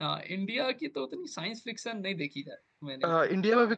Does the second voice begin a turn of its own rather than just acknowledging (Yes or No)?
Yes